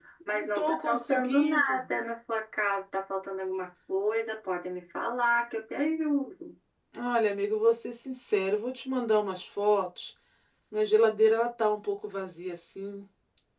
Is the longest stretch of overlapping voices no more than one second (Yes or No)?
No